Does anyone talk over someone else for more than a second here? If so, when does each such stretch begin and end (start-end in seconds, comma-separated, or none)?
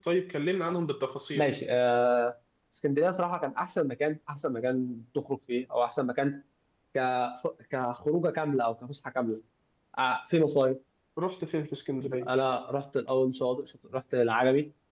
none